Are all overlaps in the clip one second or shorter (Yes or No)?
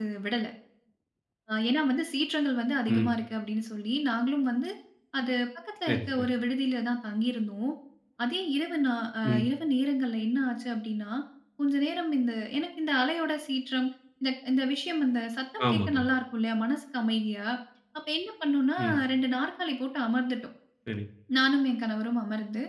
Yes